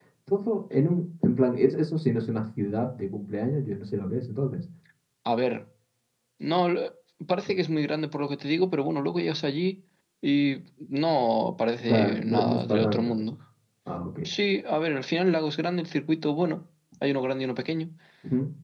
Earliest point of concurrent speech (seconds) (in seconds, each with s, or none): 11.9 s